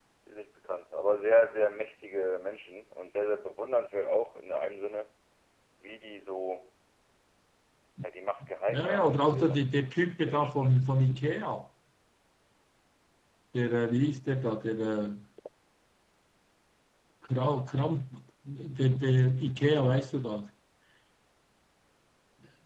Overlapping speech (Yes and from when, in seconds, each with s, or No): Yes, from 8.7 s